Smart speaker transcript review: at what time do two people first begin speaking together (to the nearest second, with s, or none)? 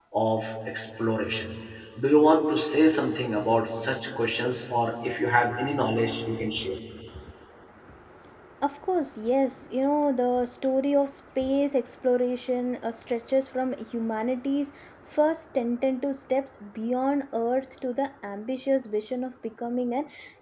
none